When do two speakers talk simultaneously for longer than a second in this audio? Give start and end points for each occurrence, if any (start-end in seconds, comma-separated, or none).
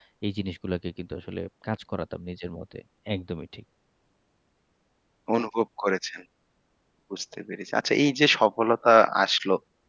none